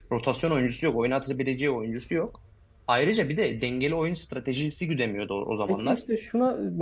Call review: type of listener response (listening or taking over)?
taking over